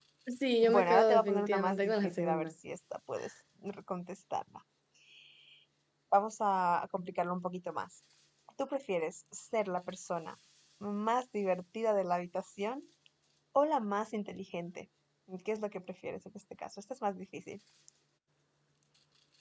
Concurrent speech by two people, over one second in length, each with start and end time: 0.7-2.5

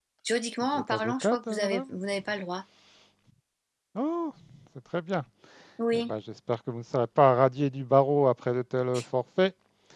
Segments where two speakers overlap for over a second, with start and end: 0.7-1.9

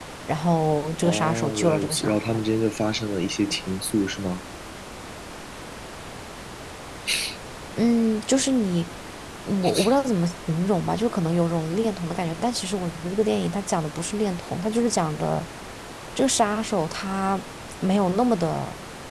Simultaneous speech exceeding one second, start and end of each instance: 1.0-2.3

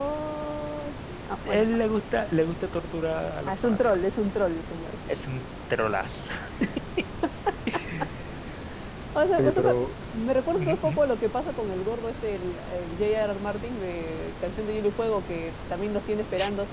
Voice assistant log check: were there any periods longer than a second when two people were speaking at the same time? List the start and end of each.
none

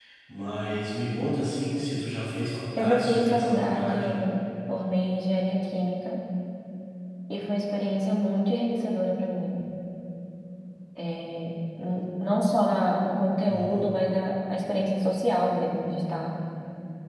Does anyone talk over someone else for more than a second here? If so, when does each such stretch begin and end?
2.8-4.1

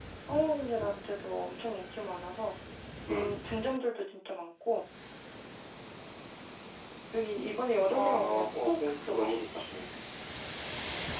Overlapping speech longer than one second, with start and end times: 7.9-9.6

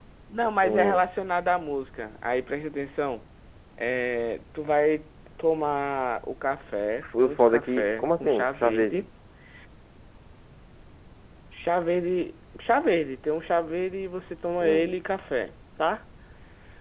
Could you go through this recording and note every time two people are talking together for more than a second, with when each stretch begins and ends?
7.0-9.0

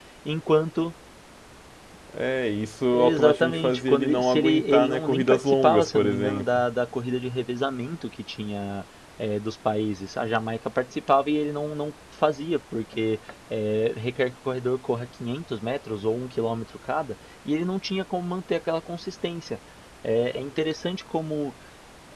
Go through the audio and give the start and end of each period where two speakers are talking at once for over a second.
2.9-6.6

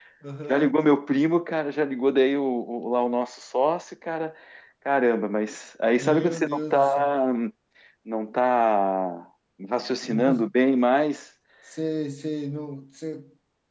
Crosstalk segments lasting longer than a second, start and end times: 6.0-7.2

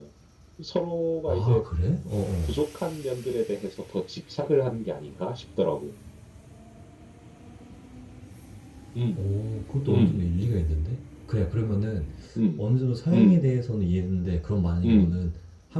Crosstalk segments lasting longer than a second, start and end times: none

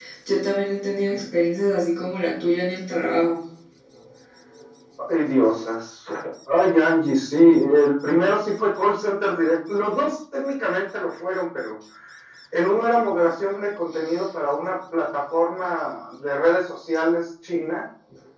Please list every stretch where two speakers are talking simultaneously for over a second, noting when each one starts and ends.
none

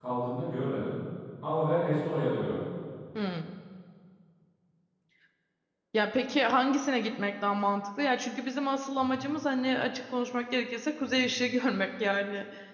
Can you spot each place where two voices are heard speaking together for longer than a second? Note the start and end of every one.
none

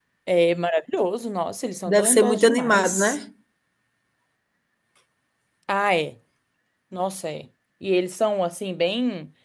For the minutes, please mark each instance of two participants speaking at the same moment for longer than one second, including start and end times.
1.9-3.2

